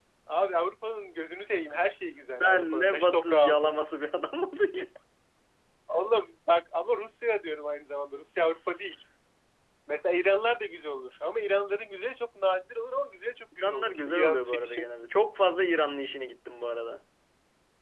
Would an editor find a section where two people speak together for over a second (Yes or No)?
Yes